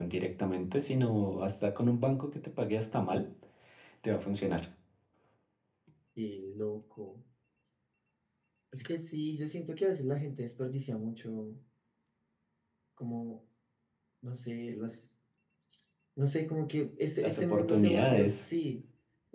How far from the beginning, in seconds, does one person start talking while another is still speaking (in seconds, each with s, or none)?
17.2 s